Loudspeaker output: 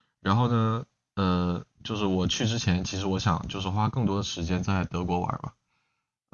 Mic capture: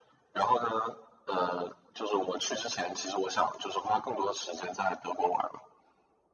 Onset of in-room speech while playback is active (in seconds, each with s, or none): none